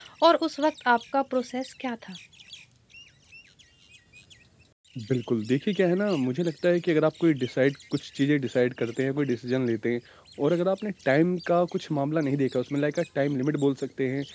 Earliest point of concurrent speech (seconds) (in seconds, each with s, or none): none